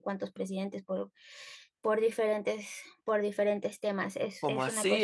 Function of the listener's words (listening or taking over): taking over